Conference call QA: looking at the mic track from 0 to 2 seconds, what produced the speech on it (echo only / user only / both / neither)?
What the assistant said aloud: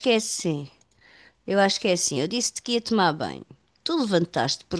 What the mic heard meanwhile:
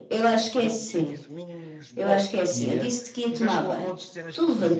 both